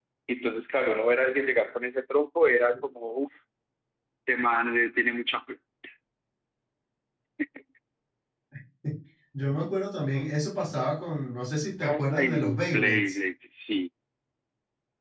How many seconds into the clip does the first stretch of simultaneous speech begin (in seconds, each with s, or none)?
11.8 s